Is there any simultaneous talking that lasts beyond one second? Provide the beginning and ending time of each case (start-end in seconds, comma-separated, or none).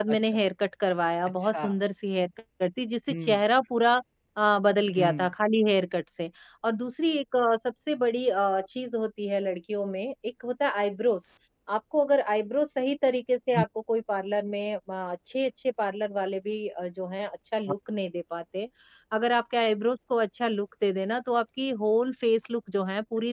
none